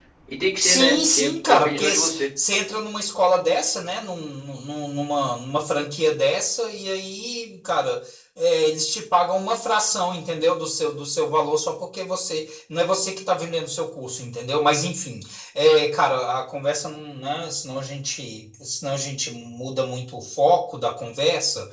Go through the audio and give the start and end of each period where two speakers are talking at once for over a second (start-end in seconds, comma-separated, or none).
0.6-2.2